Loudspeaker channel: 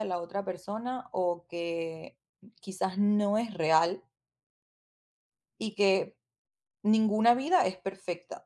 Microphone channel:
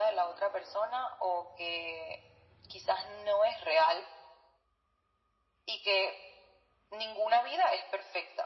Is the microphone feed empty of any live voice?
Yes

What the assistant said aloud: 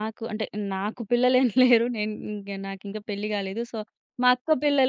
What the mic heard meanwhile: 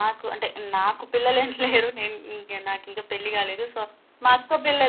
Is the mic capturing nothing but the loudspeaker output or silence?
Yes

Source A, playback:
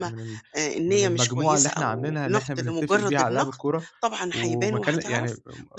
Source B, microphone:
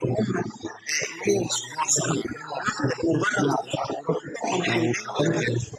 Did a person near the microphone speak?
No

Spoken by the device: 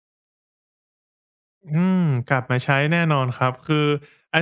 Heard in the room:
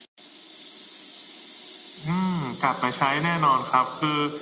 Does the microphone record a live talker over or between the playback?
No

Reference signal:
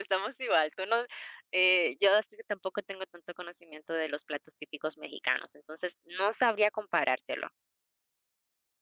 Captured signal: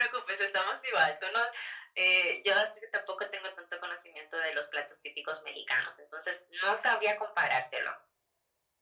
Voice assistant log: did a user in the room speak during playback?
No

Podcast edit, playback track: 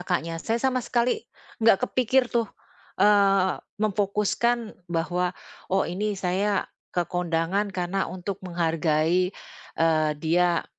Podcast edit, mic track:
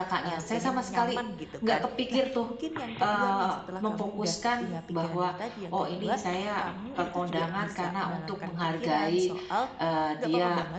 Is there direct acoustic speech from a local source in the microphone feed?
Yes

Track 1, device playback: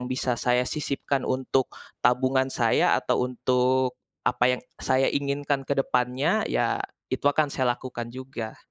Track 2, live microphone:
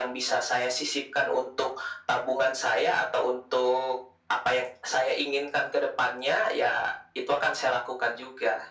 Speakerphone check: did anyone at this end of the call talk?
No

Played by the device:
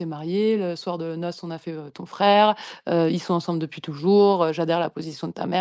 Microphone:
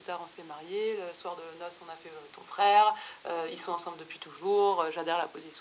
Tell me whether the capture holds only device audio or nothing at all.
Yes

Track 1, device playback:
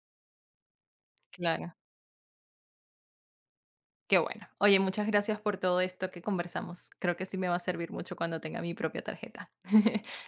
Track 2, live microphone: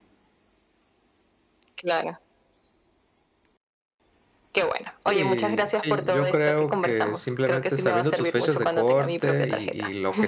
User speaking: Yes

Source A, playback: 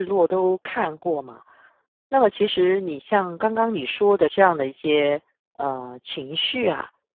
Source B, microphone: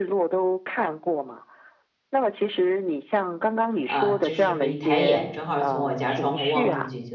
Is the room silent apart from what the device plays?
No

